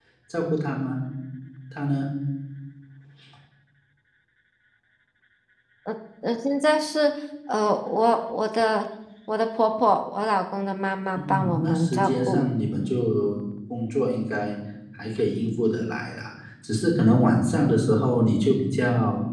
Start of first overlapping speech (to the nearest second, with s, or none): 11 s